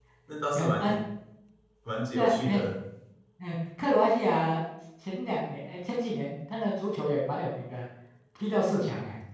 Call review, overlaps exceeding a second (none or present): none